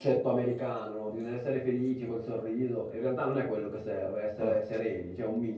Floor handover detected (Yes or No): No